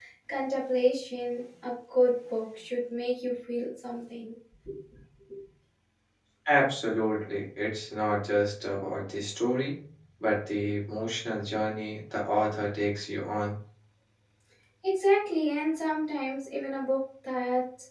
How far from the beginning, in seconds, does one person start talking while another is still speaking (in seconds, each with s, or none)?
none